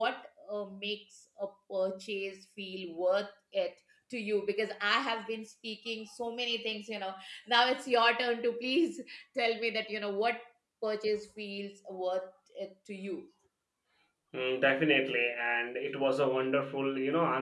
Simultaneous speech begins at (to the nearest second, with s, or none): none